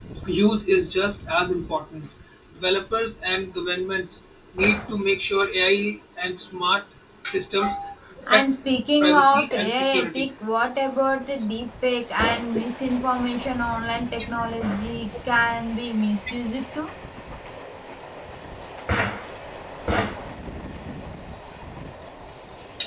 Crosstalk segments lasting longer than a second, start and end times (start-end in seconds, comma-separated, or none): 9.0-10.2